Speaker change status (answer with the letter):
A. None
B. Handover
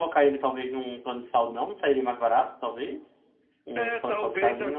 B